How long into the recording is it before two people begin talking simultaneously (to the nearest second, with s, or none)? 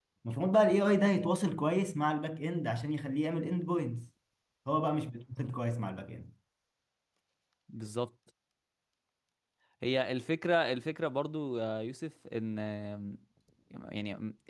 none